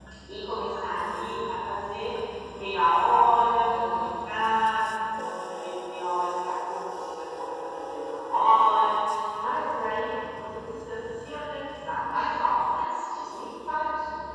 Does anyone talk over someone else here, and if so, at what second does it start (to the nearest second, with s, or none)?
4 s